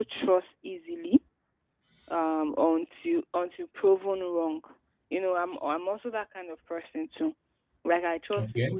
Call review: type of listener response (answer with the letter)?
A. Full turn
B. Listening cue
B